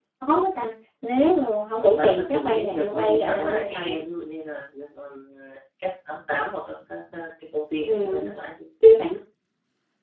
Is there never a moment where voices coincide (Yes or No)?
No